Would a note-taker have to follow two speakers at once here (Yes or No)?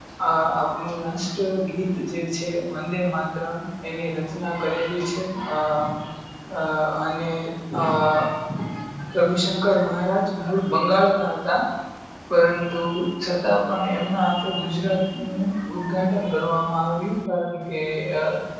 No